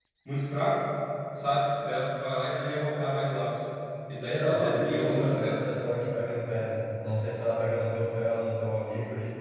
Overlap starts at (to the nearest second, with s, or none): 4 s